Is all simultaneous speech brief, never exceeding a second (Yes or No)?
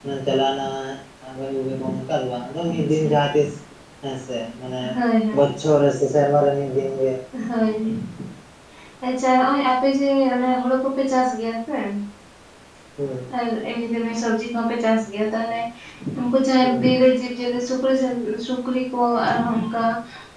Yes